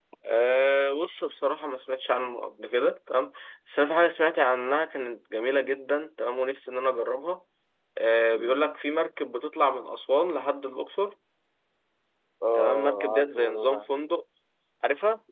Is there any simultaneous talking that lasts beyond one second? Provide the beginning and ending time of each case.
12.5-13.8

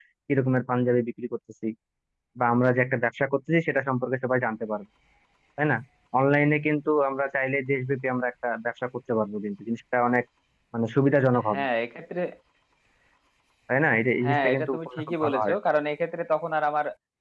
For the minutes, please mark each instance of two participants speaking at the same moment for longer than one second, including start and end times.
14.2-15.6

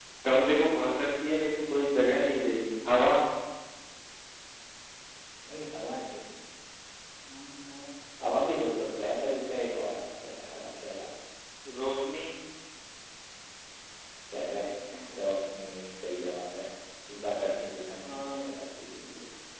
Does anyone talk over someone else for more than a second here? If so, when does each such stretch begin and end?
none

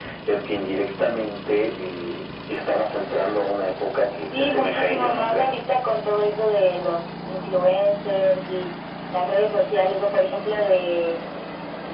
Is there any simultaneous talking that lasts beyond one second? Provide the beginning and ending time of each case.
4.3-5.6

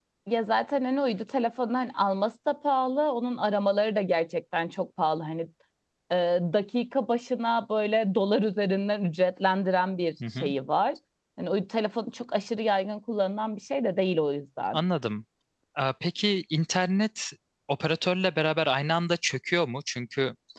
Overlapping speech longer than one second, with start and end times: none

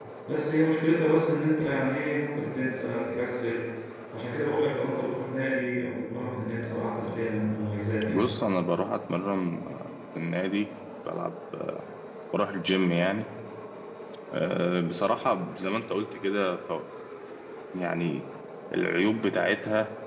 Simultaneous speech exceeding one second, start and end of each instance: none

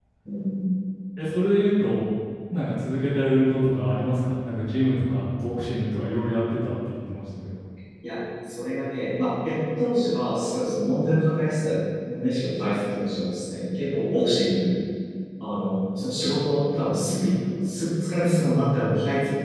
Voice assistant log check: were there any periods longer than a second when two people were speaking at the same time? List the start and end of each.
none

